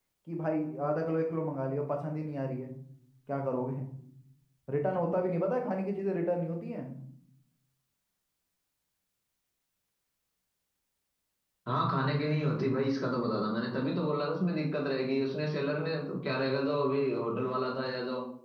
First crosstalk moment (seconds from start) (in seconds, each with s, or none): none